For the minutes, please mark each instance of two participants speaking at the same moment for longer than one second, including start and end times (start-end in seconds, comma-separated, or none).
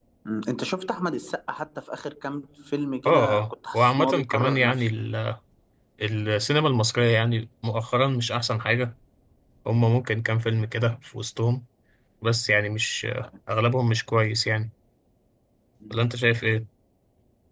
3.0-4.9